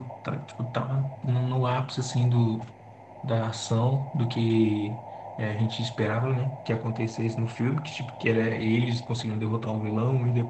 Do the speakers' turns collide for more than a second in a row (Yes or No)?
No